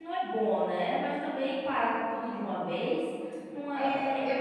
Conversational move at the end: taking over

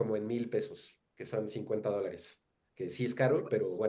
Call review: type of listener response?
listening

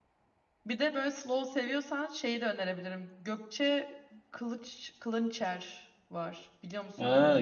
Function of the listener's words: taking over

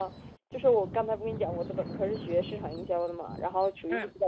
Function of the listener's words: listening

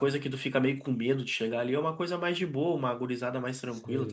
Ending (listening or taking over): taking over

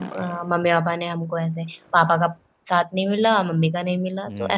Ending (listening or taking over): taking over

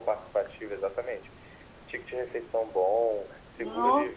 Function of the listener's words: listening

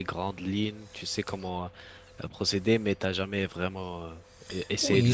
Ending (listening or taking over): taking over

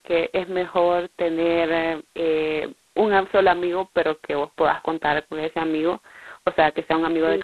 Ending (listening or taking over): listening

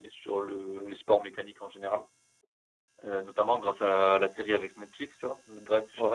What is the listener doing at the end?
listening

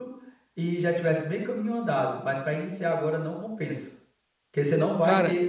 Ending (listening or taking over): listening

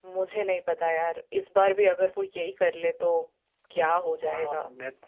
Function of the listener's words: taking over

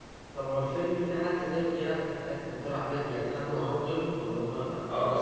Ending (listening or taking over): taking over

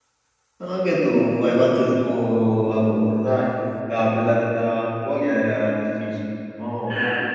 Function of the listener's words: taking over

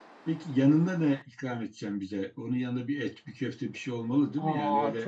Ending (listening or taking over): taking over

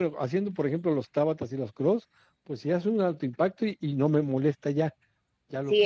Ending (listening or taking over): taking over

